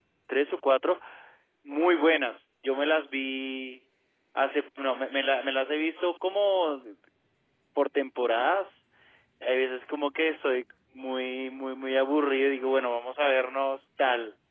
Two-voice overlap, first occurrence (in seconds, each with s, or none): none